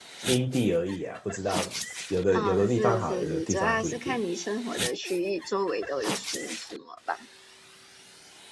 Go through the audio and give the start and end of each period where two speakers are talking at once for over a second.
2.3-4.2

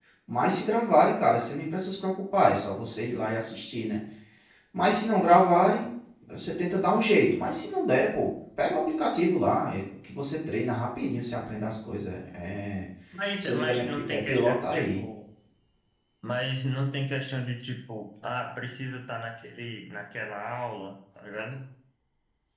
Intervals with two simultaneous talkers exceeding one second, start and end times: 13.4-15.0

